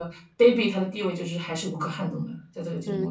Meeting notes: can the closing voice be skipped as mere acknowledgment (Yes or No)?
No